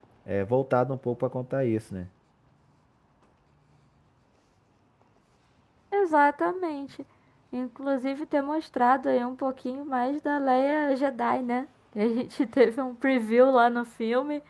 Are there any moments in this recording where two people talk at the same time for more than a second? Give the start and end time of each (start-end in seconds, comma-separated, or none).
none